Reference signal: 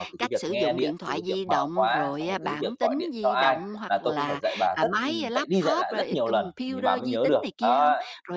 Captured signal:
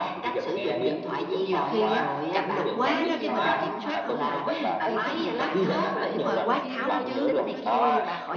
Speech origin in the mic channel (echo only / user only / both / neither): both